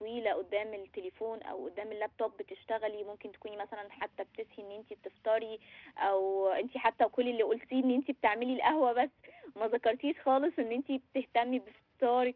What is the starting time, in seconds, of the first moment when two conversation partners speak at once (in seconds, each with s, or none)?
none